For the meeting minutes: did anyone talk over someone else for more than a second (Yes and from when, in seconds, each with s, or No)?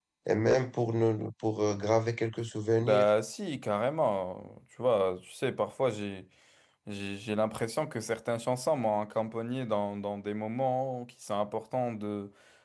No